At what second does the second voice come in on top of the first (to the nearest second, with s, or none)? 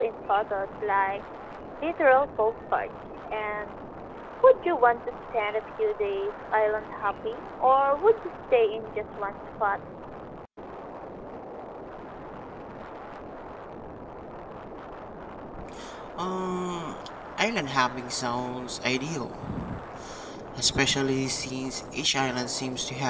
none